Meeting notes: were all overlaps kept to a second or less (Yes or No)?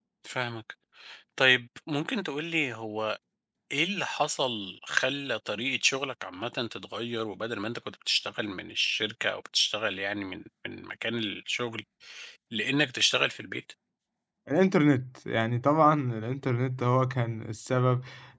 Yes